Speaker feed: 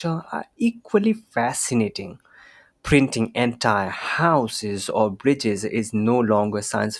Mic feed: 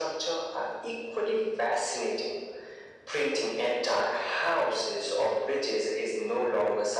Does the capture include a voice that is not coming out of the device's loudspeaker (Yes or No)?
No